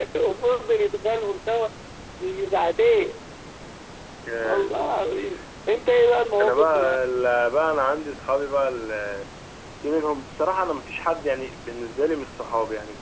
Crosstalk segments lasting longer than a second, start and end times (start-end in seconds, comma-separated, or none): none